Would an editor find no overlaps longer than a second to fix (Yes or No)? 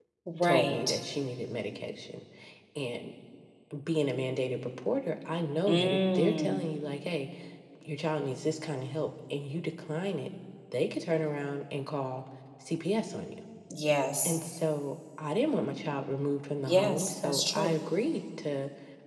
No